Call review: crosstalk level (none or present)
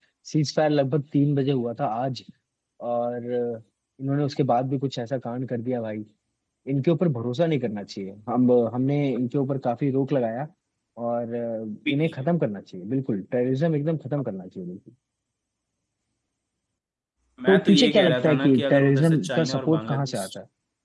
present